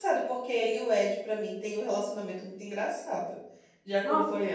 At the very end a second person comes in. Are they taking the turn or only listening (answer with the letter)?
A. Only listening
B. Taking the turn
B